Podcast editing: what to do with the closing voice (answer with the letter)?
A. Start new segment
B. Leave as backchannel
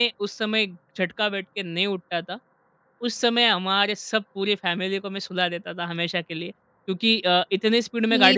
A